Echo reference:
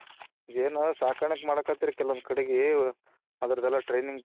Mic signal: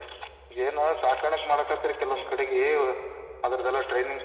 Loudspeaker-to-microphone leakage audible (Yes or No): Yes